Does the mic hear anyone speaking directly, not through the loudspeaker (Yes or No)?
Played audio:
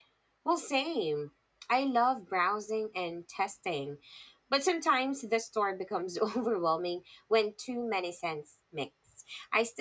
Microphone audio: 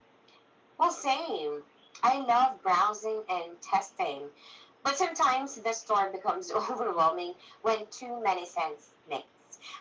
No